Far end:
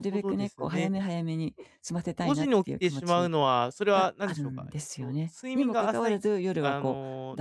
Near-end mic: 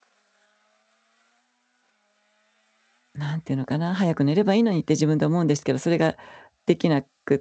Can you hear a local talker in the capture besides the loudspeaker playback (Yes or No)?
Yes